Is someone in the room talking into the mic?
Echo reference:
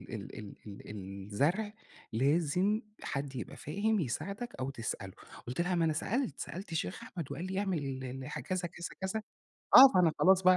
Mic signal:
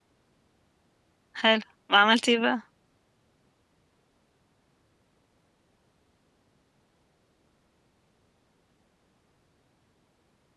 Yes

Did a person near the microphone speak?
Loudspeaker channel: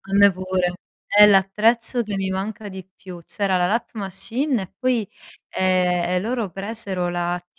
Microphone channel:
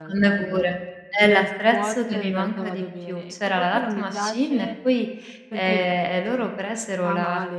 Yes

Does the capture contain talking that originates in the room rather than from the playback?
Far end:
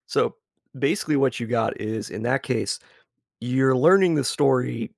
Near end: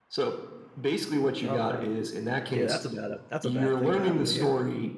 Yes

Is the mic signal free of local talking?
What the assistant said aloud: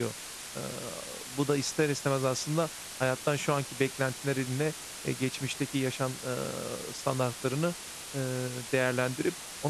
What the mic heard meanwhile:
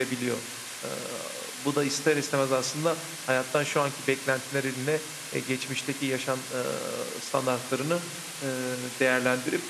Yes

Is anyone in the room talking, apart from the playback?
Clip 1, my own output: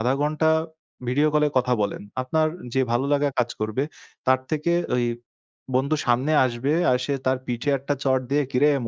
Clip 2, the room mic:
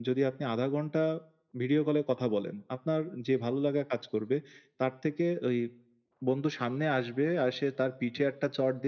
No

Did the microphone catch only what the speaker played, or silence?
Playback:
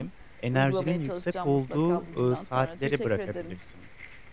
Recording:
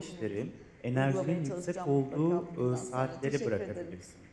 Yes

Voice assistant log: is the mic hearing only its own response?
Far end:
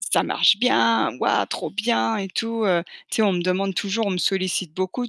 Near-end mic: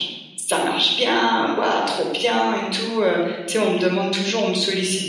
Yes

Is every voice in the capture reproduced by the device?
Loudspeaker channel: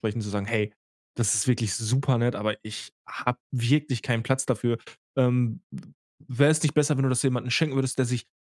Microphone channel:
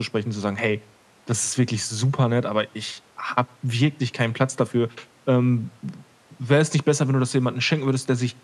Yes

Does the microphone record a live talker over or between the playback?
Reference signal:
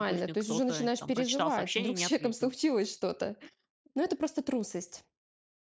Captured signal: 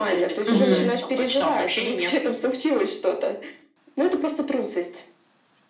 Yes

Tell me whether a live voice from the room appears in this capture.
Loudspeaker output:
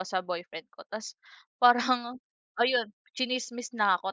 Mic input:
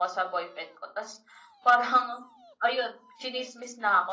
No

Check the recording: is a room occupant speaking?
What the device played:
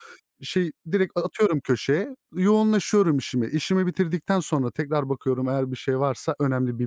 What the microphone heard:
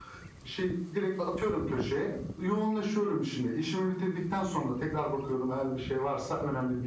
No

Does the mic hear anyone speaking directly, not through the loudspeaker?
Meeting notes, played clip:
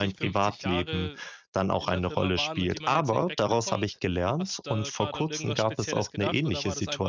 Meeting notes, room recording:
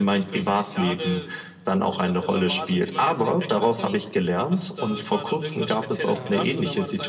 Yes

